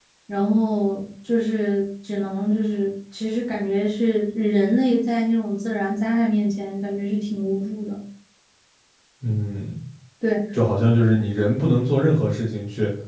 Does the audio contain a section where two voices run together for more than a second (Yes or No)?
No